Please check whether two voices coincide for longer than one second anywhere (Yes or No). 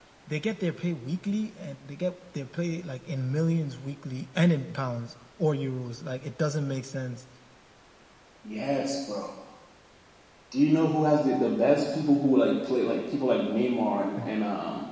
No